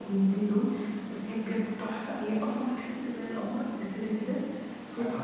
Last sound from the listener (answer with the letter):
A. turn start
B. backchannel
B